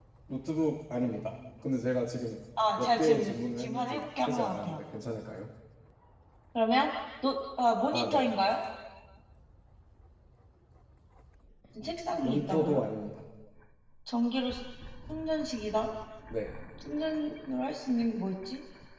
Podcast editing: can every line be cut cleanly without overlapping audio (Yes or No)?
No